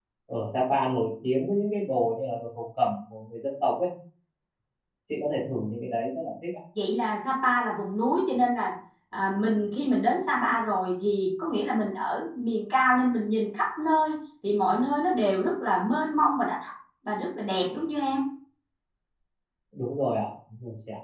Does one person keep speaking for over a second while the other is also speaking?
No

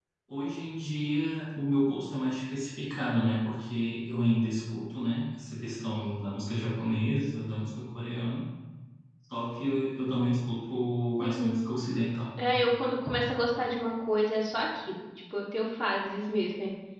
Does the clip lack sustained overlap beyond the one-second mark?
Yes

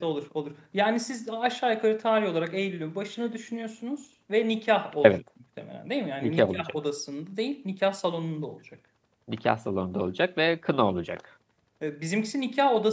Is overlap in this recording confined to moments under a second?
Yes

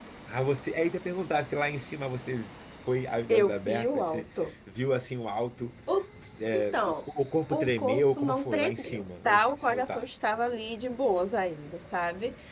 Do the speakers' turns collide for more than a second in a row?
Yes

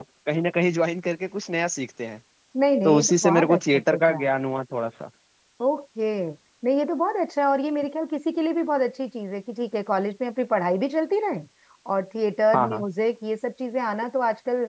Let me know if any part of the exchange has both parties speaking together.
Yes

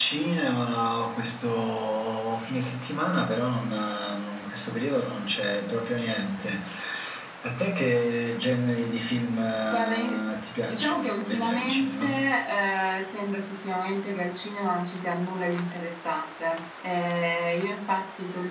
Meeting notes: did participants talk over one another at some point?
Yes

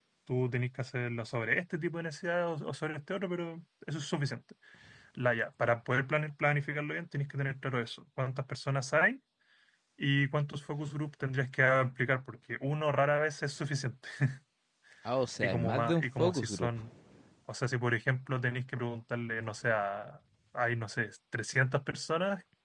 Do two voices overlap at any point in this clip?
Yes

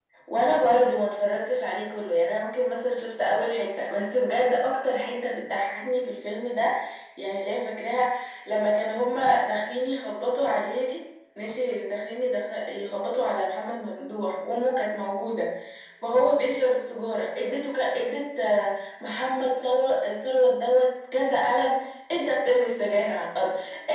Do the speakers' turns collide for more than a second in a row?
No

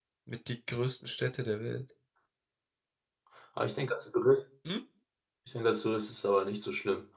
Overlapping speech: No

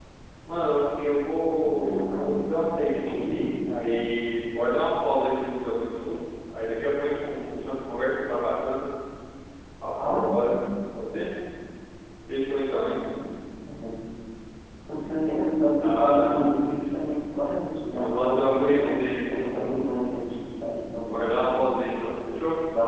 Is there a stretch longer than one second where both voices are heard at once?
Yes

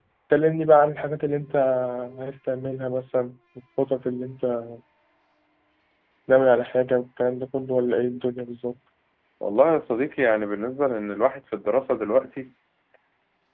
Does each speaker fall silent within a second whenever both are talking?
Yes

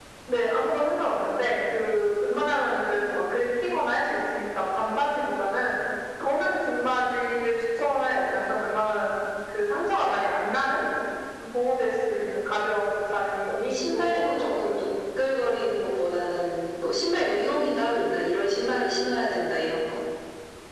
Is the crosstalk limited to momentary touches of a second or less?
No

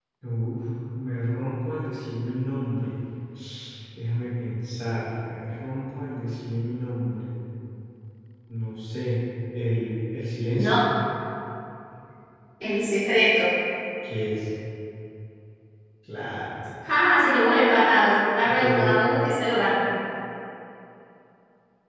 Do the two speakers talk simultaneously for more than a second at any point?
No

